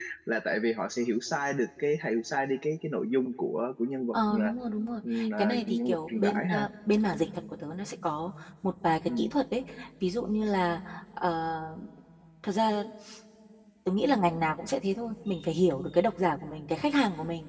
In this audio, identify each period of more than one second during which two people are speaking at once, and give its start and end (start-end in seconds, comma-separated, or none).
5.4-6.7